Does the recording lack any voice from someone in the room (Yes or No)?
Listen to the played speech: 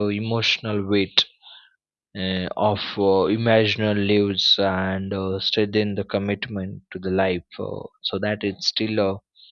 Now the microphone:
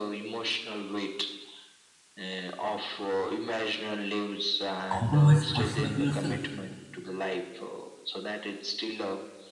No